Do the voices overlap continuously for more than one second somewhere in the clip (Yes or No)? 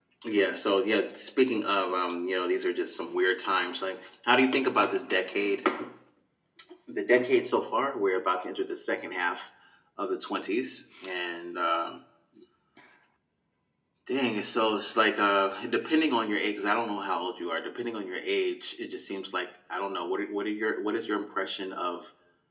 No